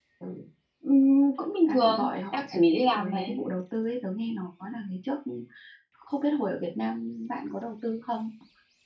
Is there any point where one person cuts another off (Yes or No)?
Yes